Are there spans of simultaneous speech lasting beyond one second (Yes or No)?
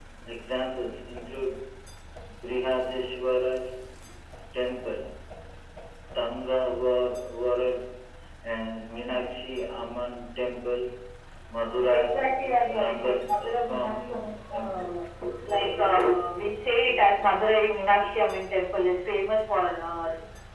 Yes